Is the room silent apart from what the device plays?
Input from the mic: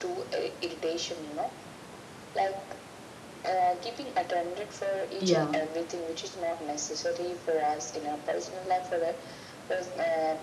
No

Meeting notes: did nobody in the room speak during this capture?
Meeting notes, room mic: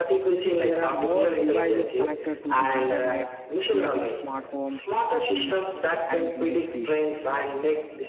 No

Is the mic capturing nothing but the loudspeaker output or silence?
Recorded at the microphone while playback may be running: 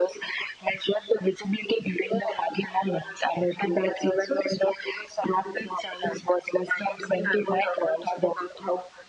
Yes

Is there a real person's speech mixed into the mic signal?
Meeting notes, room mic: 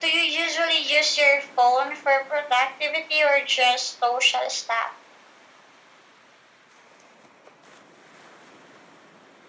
No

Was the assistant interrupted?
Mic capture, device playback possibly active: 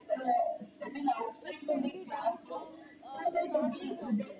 Yes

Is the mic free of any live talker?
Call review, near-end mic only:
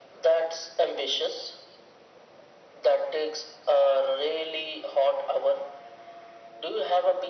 Yes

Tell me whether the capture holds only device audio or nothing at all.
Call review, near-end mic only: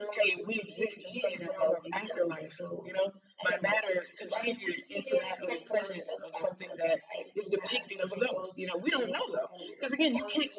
Yes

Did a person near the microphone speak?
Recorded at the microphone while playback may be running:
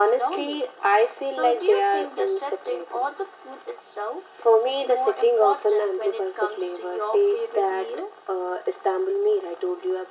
No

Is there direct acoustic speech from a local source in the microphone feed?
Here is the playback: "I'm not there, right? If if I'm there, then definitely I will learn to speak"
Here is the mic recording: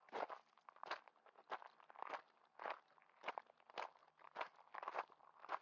No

